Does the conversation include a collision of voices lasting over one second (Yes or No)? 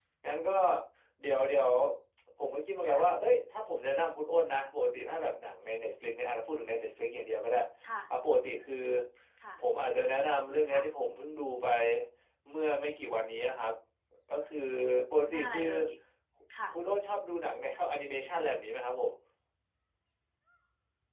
No